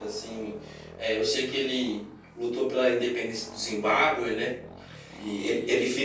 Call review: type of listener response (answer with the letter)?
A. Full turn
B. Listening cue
A